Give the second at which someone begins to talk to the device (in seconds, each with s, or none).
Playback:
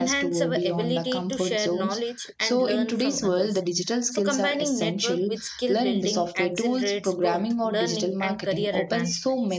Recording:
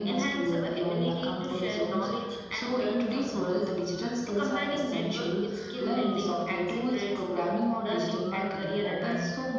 none